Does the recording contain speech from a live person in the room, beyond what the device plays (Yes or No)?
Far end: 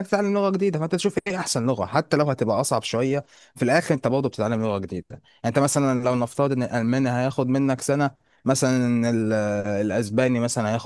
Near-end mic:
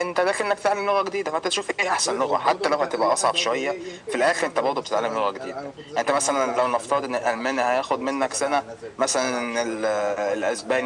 Yes